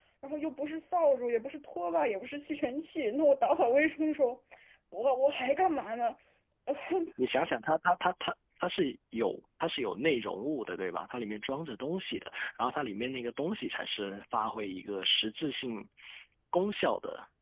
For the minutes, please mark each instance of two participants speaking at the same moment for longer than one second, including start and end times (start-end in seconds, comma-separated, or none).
none